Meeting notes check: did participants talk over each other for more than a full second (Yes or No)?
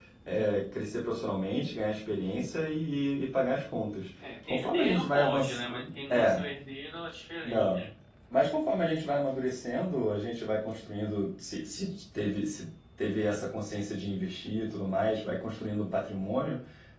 Yes